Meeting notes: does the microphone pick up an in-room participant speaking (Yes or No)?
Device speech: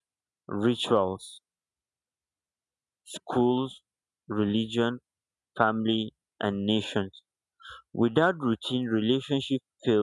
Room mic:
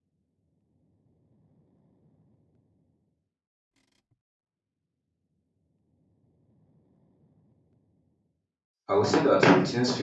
Yes